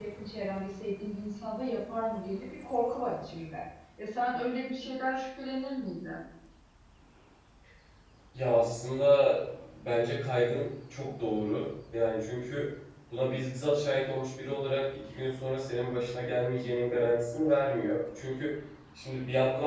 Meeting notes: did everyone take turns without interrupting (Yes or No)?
Yes